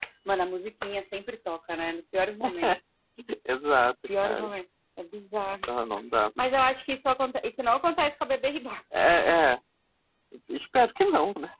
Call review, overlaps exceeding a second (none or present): none